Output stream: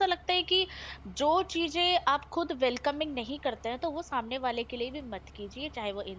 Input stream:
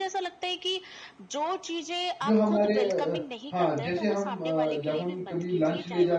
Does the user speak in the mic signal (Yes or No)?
Yes